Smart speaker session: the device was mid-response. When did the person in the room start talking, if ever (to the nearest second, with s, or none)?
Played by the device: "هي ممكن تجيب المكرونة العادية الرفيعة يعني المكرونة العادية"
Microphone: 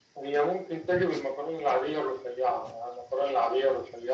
none